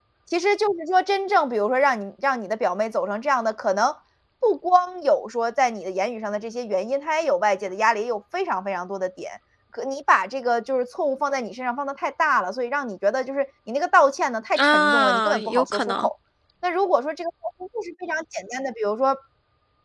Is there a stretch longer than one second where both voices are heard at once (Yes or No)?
Yes